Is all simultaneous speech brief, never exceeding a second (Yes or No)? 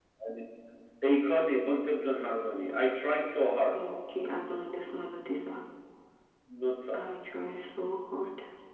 Yes